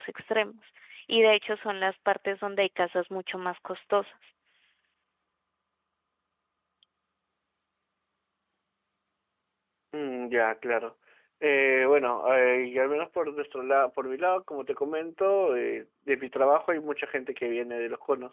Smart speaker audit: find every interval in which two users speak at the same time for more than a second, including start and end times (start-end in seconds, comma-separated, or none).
none